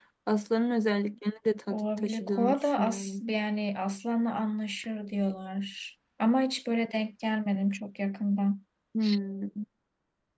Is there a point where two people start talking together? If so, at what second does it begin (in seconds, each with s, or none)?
1.7 s